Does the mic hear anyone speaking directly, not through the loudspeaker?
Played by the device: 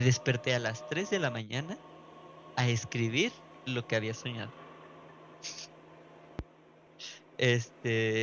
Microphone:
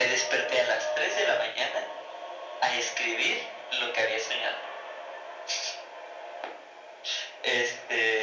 No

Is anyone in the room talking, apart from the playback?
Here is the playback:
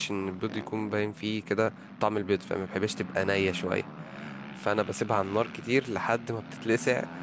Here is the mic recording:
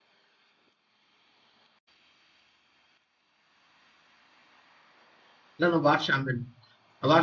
Yes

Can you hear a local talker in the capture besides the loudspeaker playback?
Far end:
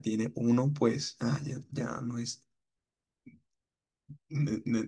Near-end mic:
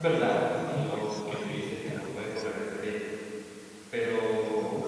Yes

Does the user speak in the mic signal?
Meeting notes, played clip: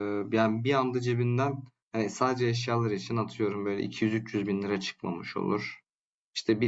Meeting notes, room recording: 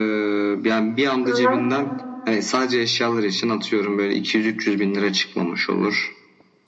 Yes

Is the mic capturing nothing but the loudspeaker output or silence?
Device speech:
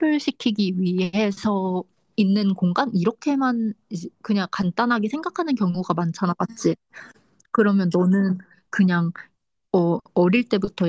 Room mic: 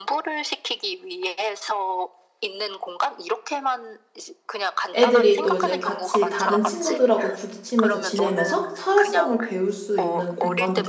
No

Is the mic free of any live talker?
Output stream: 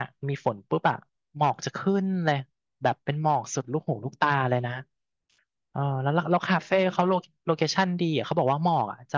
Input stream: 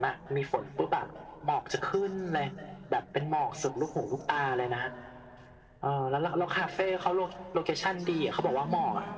No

